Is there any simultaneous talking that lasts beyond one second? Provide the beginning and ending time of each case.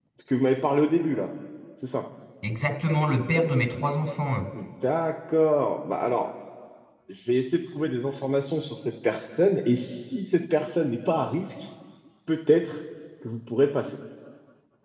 none

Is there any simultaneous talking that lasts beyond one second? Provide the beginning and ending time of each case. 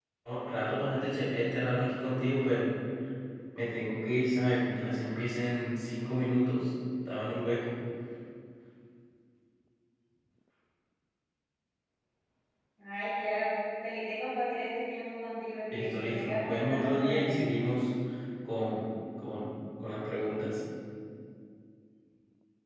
15.7-17.5

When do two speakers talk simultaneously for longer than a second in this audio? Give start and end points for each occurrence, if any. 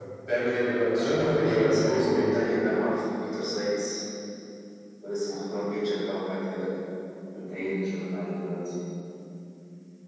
1.0-2.3

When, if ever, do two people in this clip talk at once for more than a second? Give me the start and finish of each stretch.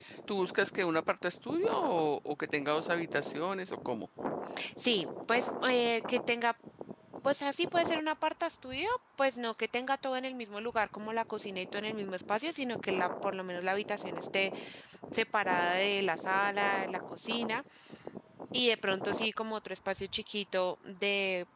none

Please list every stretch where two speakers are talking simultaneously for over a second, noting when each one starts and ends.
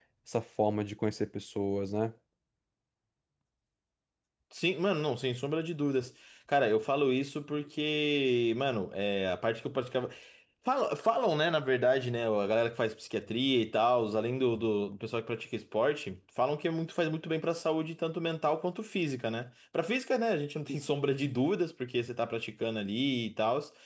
none

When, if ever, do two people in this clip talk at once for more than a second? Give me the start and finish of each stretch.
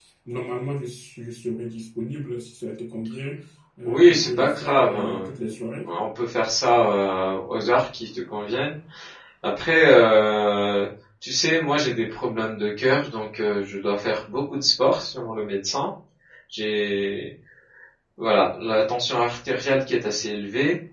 3.8-5.3

